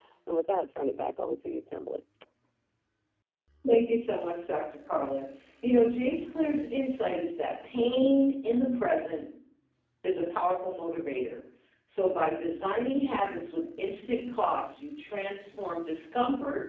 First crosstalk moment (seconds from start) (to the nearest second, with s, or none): none